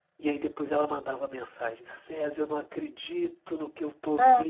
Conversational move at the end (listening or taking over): listening